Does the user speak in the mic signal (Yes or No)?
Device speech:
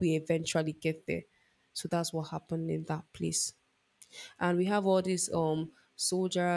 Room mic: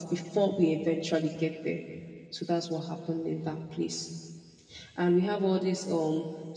No